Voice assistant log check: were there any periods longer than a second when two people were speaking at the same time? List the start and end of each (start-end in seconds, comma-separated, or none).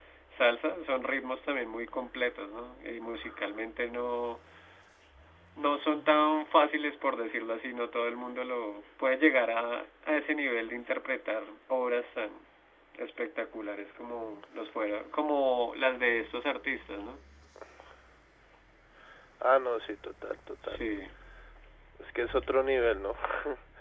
none